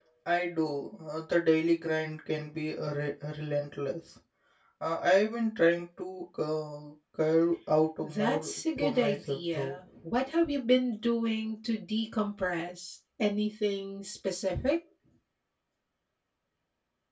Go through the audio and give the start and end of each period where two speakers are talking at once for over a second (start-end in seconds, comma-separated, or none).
8.0-9.8